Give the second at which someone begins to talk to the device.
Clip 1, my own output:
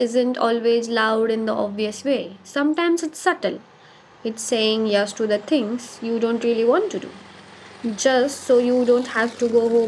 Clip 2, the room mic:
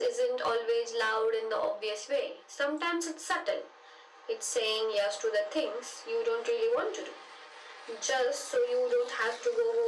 none

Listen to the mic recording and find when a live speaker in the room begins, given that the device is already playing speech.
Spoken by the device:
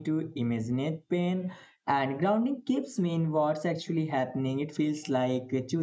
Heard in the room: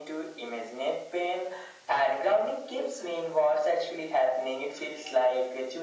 none

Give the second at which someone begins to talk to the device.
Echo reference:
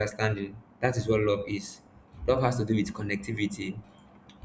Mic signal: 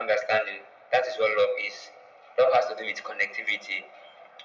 none

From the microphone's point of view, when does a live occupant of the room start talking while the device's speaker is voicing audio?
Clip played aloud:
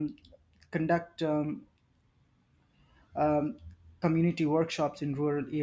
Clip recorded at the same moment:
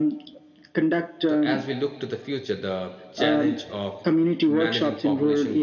1.3 s

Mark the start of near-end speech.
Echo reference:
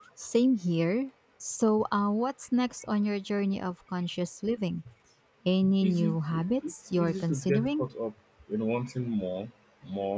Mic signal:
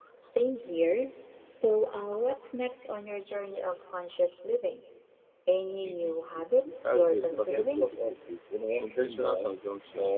6.8 s

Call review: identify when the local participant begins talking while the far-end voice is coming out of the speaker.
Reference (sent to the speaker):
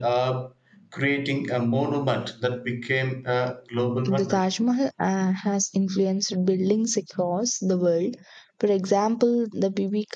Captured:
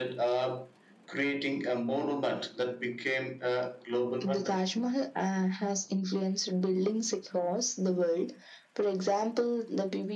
none

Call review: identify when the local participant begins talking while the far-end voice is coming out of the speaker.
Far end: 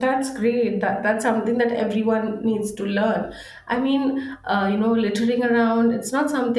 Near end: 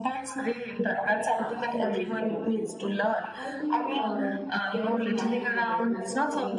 1.4 s

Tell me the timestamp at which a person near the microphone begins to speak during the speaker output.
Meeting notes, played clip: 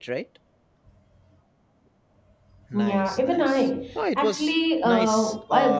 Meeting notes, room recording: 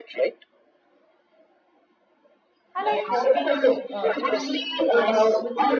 2.7 s

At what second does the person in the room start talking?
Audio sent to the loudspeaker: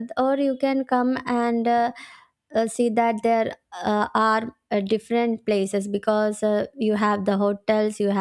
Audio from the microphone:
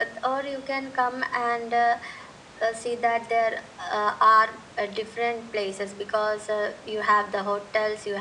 none

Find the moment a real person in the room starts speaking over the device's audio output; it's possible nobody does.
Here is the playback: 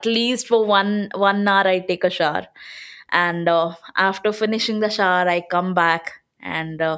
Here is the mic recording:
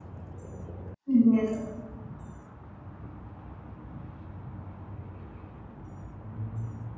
1.1 s

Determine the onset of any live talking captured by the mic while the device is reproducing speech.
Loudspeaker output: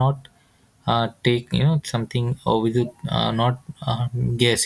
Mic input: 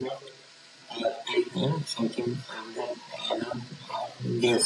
none

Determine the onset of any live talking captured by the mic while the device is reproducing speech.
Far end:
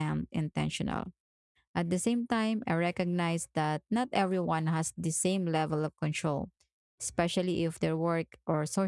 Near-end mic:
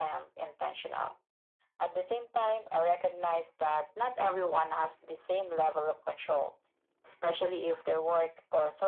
none

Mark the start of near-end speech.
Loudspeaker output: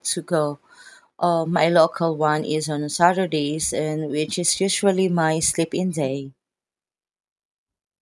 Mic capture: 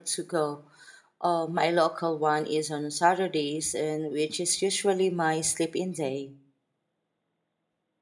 none

